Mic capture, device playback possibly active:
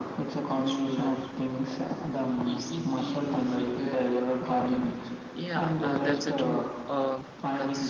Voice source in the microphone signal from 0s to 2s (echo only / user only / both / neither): echo only